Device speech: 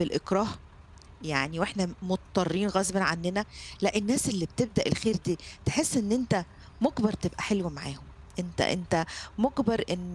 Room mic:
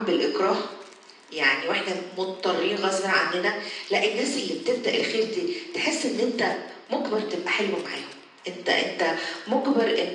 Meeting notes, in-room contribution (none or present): none